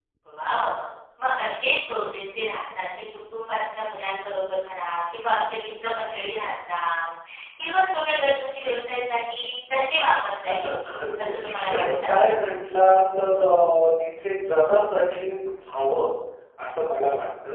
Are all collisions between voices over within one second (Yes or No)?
No